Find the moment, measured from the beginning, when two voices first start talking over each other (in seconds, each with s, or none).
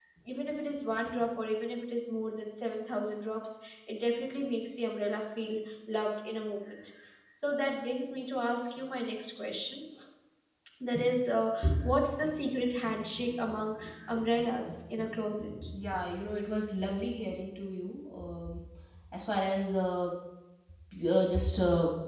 none